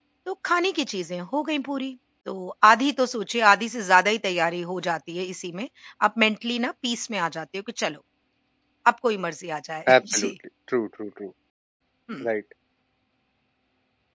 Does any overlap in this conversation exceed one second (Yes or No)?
No